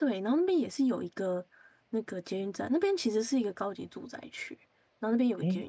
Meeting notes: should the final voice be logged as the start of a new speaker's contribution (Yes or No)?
No